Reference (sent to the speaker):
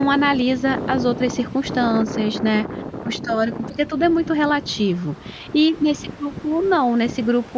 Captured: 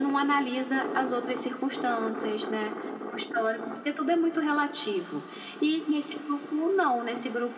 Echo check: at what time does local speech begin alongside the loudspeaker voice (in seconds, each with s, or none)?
none